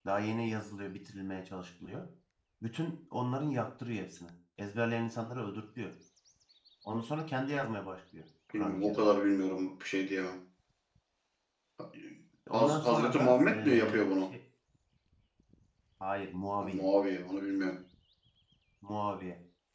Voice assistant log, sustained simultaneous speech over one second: present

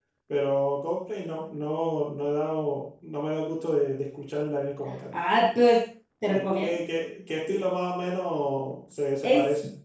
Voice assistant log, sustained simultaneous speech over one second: none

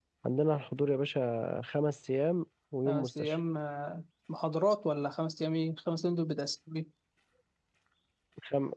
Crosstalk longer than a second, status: none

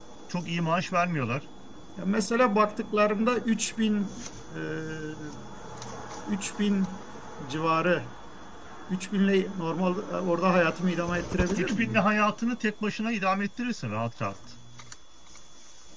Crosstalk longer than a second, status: none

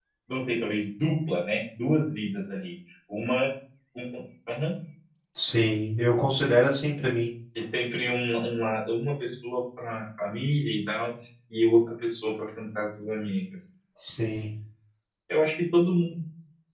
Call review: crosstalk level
none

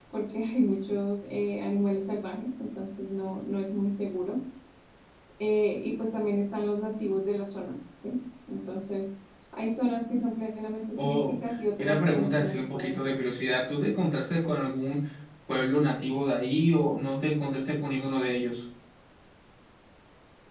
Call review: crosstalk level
present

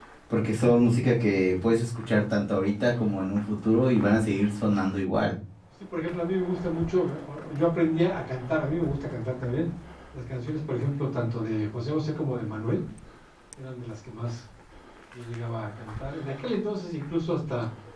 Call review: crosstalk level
none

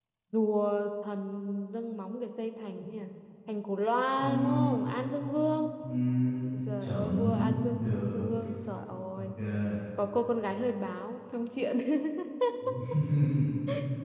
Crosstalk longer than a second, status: present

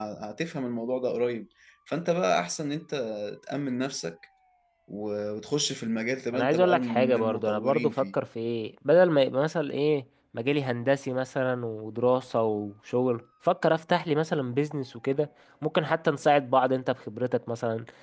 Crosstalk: present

